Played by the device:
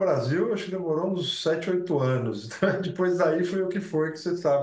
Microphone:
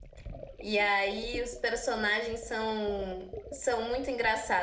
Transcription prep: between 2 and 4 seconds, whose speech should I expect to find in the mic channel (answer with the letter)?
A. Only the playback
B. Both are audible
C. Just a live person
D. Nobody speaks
C